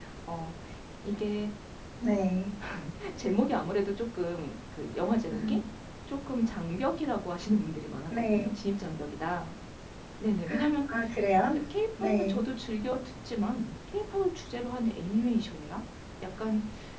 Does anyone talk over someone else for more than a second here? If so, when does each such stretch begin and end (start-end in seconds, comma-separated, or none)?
none